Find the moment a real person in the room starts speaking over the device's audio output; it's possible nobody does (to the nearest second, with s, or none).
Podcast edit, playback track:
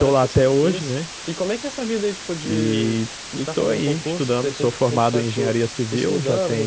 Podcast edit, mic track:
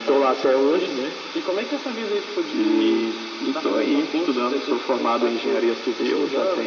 none